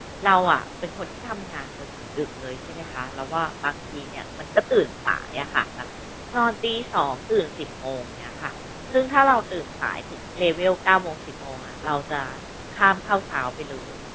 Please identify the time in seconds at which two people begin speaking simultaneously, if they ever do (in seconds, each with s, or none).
none